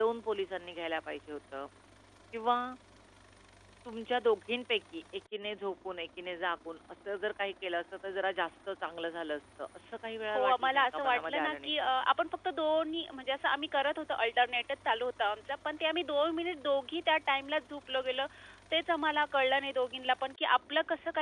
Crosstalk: present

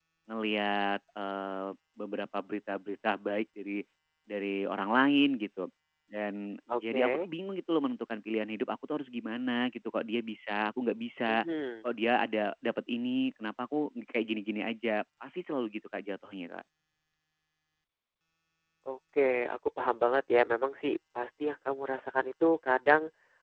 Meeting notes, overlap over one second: none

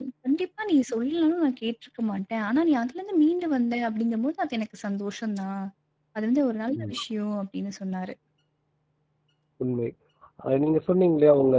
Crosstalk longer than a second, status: none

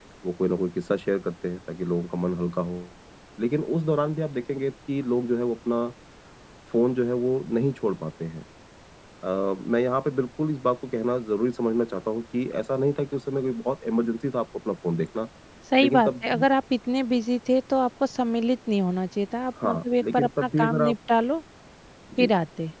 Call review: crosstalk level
present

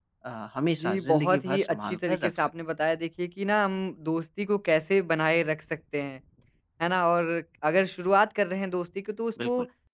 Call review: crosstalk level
present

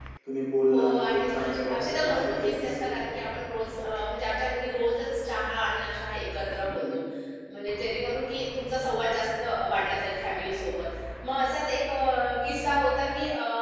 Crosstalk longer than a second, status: present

